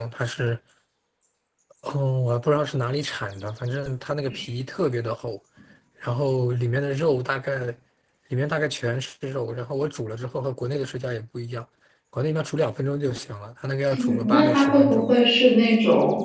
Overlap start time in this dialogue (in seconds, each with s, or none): 13.9 s